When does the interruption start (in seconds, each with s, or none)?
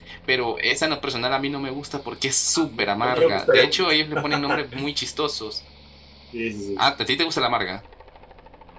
2.5 s